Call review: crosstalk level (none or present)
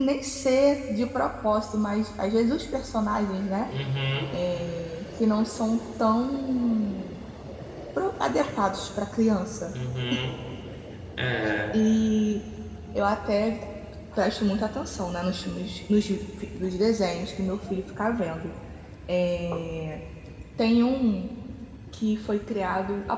none